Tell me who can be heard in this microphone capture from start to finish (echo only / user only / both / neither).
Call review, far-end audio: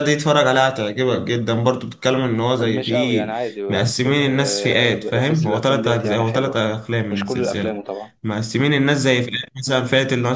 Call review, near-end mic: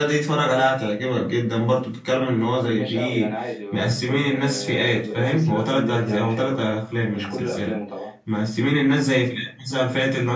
echo only